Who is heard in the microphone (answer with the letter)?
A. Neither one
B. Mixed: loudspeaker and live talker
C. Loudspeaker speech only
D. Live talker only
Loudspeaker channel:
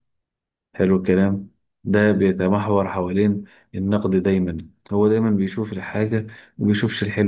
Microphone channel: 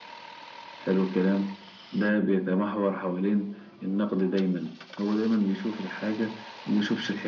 C